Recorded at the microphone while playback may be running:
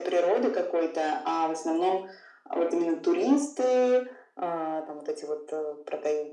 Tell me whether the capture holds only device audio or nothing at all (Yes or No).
Yes